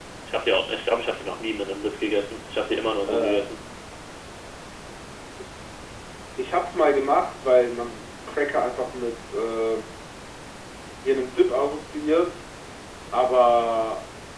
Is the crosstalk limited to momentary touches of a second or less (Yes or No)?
Yes